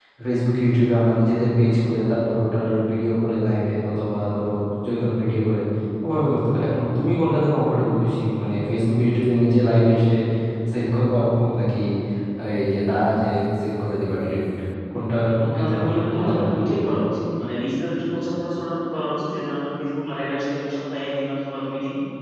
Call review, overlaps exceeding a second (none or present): present